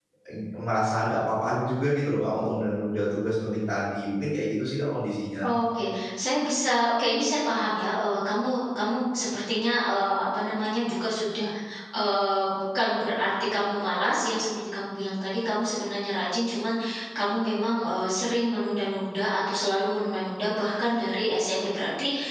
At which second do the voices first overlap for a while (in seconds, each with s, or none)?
none